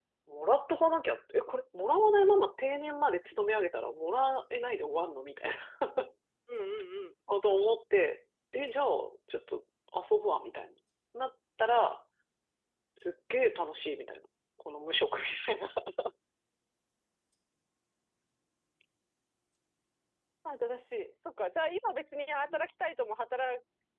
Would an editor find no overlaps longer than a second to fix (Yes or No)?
Yes